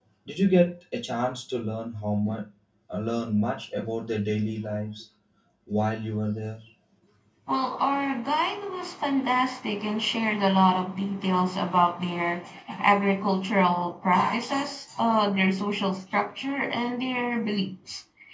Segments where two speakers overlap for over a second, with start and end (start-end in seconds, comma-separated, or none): none